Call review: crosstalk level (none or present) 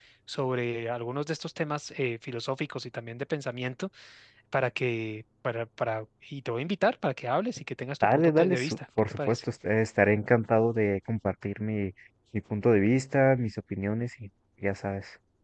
present